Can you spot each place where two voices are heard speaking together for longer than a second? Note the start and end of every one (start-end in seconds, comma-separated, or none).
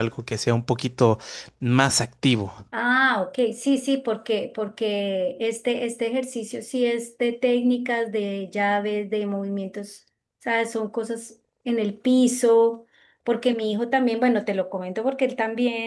none